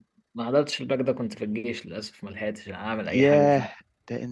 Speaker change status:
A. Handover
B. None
A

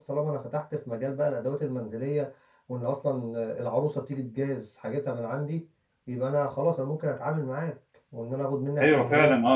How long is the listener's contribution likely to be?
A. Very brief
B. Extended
B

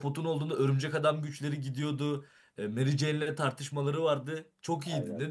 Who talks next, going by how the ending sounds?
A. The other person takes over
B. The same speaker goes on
A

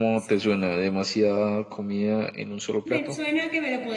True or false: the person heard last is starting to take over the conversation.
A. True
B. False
A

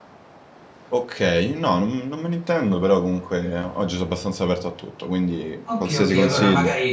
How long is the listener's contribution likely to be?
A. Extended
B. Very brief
A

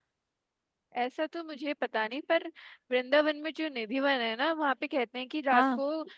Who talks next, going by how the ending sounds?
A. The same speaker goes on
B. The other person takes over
A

